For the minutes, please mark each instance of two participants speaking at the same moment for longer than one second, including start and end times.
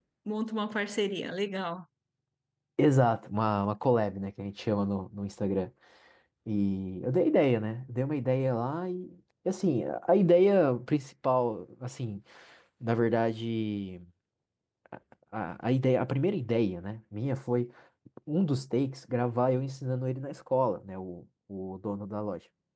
none

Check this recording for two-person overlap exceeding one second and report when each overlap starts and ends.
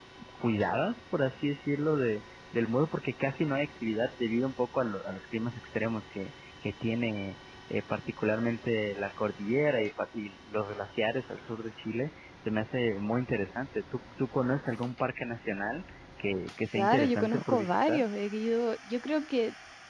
16.7-18.0

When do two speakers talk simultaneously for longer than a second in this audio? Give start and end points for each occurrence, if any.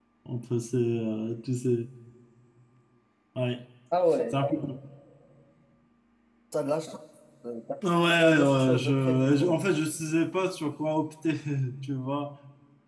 8.1-9.6

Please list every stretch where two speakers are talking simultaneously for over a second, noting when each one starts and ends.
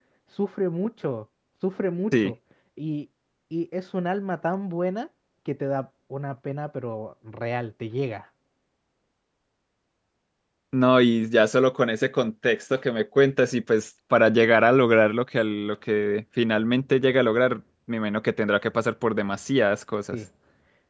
none

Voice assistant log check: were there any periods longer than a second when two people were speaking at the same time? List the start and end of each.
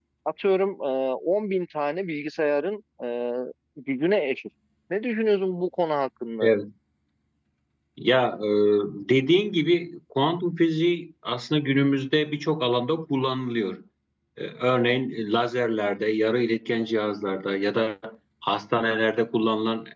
none

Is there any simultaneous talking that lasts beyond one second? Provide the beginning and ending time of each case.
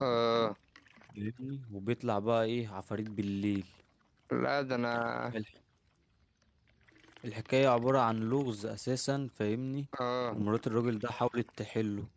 none

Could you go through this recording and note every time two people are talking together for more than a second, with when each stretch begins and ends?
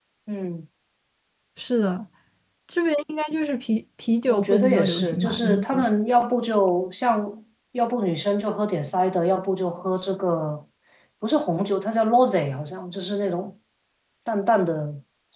4.3-5.9

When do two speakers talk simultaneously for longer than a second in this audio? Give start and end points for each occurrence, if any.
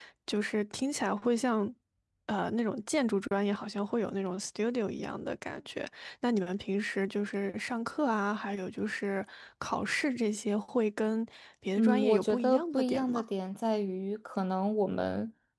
11.8-13.2

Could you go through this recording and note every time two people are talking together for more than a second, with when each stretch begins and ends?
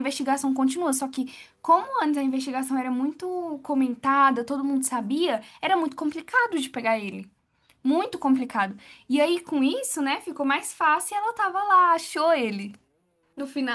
none

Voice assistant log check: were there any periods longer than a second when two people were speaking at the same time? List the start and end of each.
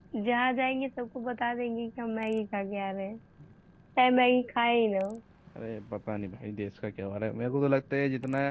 none

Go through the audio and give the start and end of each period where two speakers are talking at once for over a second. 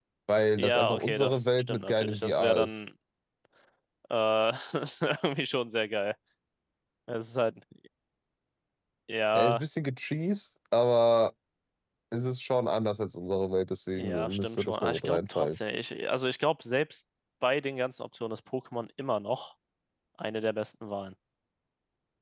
0.6-2.8, 13.9-15.6

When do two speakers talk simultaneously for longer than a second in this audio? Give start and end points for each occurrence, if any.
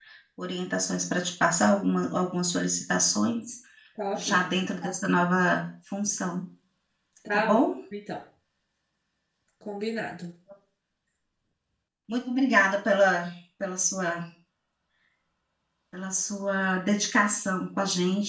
none

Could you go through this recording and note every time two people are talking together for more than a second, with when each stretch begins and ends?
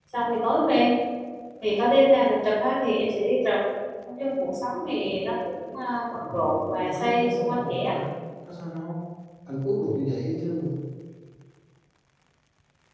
6.8-8.0

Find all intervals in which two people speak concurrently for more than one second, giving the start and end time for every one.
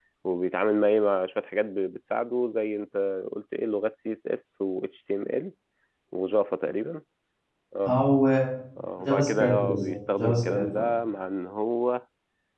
9.0-10.8

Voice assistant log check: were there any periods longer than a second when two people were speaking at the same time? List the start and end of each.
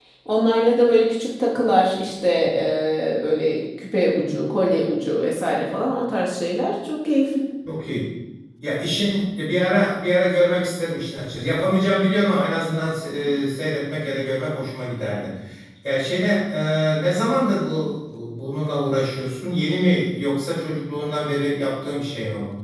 none

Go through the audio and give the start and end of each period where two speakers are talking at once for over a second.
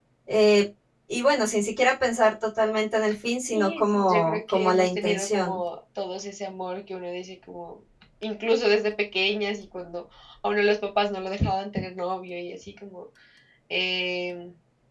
3.5-5.6

